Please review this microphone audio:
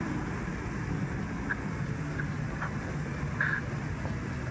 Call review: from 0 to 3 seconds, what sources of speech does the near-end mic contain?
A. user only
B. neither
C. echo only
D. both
B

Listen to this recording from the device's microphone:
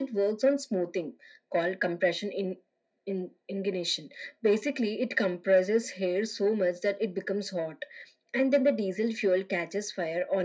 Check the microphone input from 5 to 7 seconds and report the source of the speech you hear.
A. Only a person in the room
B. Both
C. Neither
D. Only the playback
D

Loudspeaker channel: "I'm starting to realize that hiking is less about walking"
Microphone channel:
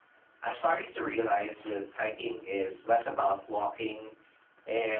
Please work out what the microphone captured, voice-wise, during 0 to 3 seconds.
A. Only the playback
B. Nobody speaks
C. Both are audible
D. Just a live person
A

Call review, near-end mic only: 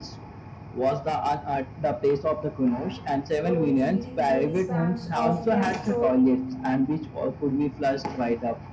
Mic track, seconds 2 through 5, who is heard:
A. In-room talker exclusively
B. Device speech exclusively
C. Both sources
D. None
C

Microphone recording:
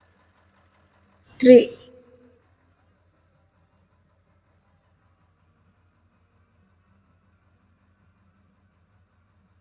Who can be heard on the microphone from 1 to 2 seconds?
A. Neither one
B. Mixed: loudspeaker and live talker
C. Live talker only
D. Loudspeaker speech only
C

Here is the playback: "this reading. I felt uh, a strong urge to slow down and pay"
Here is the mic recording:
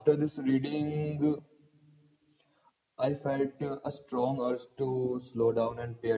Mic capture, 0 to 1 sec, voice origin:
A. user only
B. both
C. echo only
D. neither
C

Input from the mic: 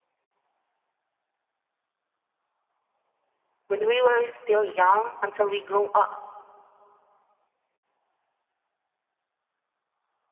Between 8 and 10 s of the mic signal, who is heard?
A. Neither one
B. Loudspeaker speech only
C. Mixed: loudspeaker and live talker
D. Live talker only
A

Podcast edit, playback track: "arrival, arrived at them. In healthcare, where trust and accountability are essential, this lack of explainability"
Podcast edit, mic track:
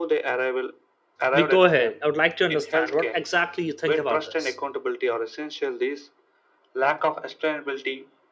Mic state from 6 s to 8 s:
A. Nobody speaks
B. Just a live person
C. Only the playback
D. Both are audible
C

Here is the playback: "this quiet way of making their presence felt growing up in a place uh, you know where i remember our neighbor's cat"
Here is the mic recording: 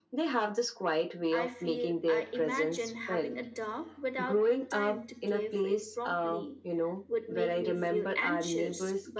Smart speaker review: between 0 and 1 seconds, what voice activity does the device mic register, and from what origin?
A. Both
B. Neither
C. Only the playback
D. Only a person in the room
C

